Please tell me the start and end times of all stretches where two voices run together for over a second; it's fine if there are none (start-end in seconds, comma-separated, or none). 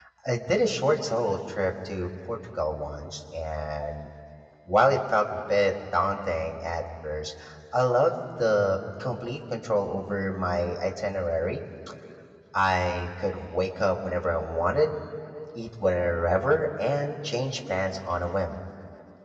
none